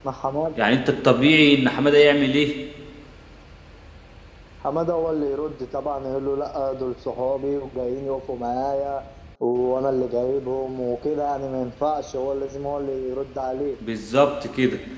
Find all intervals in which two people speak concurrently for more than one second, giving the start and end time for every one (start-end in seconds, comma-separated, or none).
none